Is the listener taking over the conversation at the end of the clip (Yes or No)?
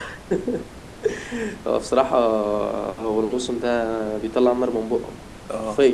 Yes